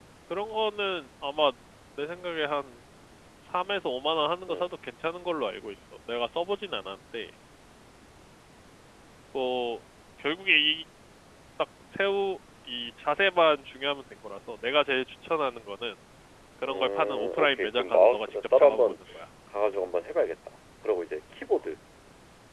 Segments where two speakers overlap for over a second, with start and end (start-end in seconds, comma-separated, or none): 16.6-18.9